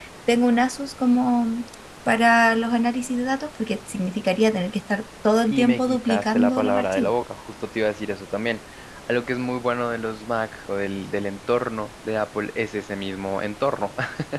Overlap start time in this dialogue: 5.5 s

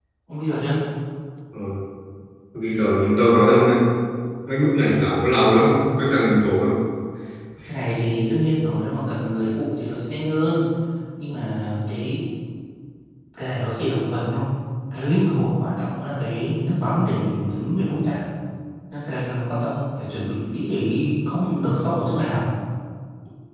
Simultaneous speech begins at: none

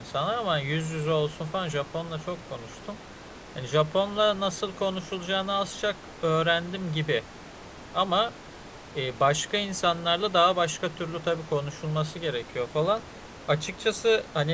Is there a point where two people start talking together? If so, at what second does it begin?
none

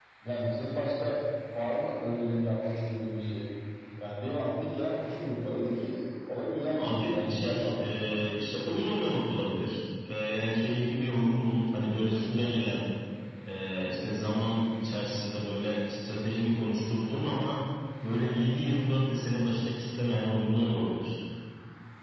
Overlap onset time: 6.8 s

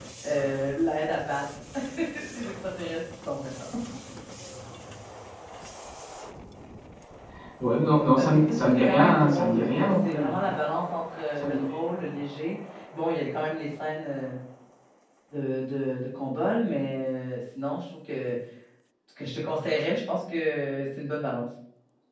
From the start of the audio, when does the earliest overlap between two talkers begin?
8.2 s

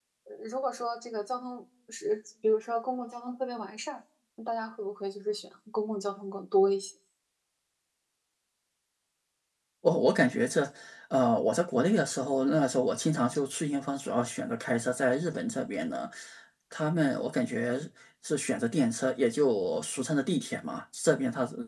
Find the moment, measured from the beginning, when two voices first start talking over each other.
none

